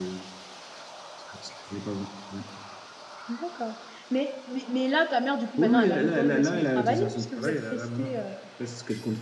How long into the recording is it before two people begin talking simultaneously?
5.6 s

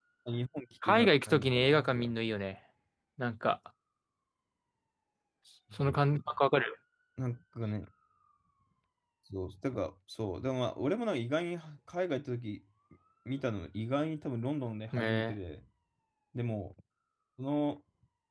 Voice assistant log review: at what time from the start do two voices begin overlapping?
0.9 s

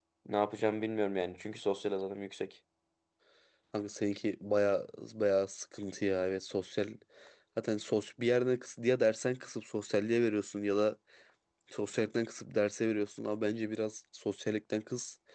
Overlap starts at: none

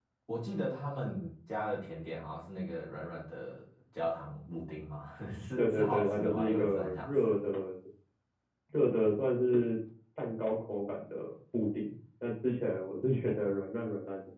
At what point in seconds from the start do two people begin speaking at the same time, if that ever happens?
5.6 s

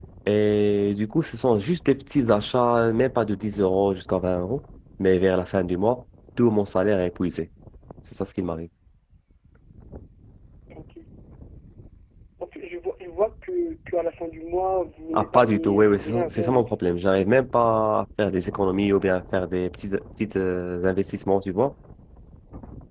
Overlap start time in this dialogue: 15.1 s

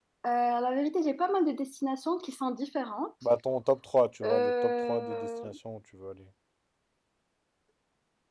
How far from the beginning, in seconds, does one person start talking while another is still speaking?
4.2 s

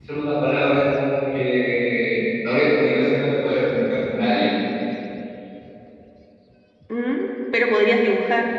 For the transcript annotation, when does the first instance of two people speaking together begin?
none

